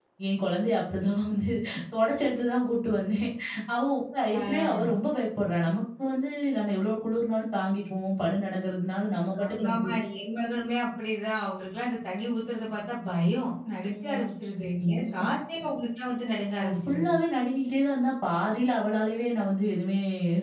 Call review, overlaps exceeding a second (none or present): none